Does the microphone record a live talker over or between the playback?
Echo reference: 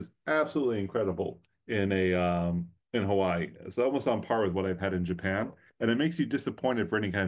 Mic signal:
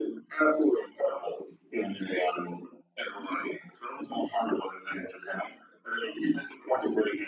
No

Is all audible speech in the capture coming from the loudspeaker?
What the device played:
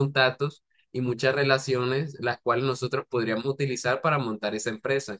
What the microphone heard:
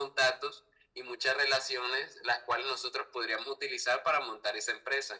Yes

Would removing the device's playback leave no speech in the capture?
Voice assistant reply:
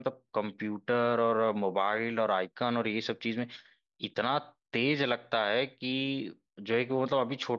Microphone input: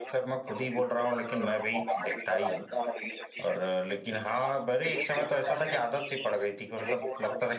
No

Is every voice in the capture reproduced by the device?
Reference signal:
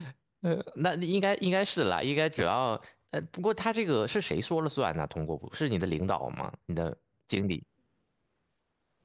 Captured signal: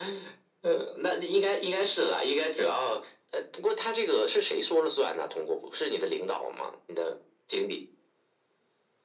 Yes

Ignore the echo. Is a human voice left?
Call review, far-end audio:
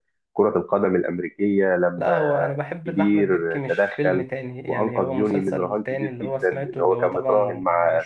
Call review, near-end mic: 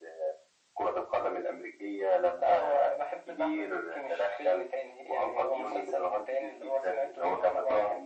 No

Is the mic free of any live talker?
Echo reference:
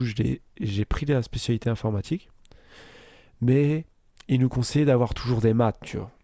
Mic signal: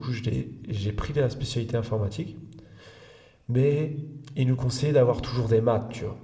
Yes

